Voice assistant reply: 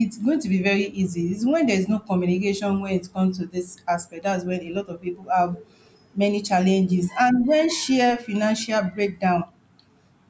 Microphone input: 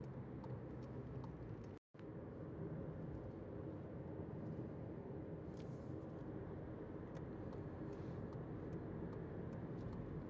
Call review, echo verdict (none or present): none